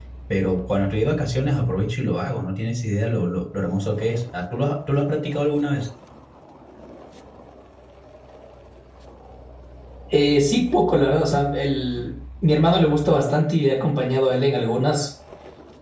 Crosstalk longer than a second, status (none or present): none